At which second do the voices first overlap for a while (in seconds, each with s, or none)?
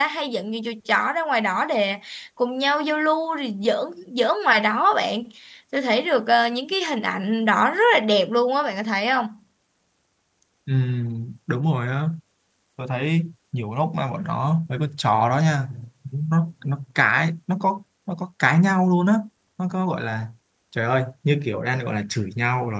none